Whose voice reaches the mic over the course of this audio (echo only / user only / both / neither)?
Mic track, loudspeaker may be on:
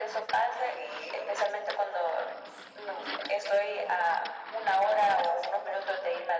echo only